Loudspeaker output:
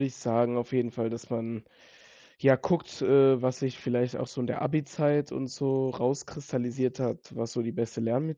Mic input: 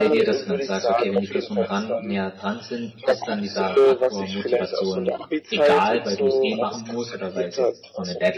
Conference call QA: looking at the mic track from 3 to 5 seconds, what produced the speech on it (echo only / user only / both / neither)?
both